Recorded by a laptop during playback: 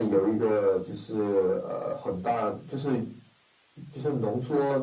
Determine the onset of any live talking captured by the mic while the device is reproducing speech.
none

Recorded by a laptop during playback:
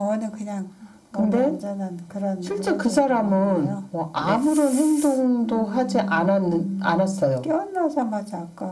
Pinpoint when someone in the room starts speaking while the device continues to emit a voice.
4.1 s

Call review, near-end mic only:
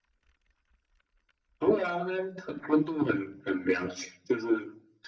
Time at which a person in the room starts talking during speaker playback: none

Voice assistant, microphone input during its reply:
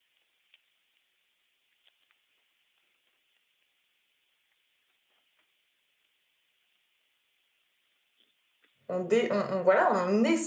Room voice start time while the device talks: 8.9 s

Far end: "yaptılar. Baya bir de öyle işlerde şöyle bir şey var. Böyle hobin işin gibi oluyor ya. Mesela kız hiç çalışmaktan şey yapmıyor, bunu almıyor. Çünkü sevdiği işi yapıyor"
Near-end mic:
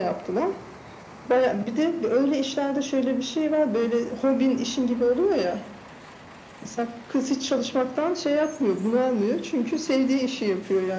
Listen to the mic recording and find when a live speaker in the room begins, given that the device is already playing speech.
none

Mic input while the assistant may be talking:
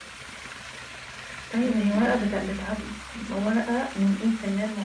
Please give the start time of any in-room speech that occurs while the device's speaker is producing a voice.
1.6 s

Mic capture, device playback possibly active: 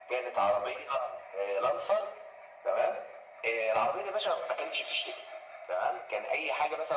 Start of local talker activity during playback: none

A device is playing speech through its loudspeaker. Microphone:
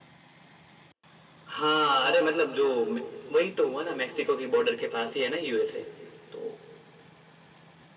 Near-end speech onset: none

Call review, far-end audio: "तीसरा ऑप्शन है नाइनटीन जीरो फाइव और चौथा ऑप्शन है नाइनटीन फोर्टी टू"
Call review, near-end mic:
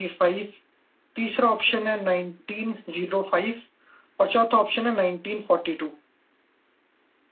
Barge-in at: none

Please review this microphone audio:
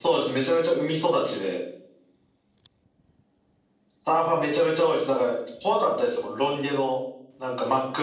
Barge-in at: none

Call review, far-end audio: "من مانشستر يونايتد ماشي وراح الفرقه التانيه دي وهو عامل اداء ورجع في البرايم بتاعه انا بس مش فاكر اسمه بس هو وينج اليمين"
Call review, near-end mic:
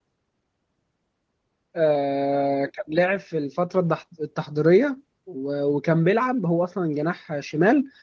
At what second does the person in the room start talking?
1.7 s

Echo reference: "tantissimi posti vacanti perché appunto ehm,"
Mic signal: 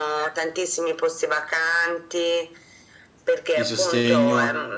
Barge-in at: 3.5 s

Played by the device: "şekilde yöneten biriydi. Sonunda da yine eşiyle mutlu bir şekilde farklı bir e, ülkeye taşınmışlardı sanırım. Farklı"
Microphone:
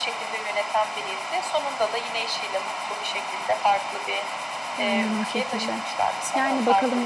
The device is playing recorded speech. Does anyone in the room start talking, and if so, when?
4.8 s

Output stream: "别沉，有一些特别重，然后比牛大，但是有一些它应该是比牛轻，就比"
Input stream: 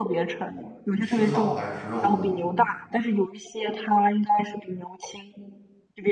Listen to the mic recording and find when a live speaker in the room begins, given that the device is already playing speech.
1.0 s

